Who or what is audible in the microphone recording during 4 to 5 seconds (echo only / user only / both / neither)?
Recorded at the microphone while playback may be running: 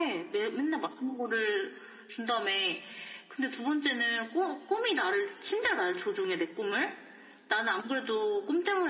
echo only